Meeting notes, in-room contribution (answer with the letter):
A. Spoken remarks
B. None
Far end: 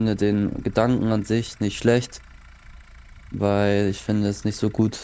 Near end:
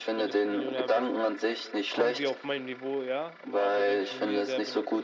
A